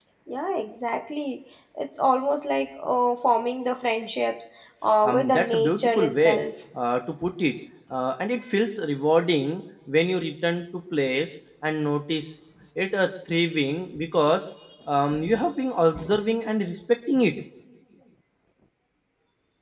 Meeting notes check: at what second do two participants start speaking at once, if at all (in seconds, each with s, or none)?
5.0 s